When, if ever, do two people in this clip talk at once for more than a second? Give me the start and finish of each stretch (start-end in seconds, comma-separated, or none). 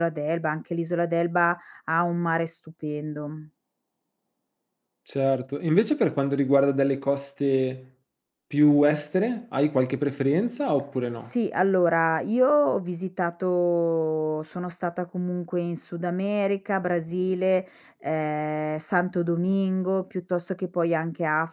none